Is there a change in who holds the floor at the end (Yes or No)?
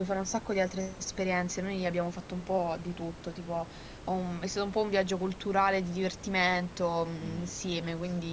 No